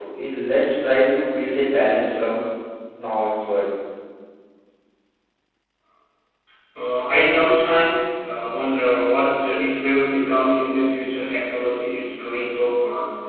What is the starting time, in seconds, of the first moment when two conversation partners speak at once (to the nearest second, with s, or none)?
none